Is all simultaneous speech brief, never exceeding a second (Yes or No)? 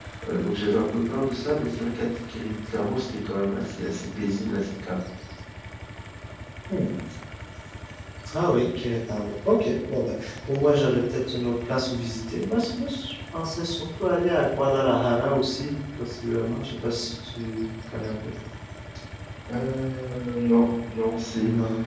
Yes